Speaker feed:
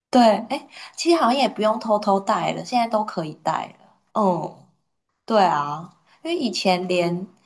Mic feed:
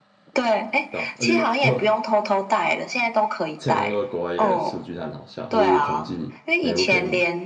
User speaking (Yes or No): Yes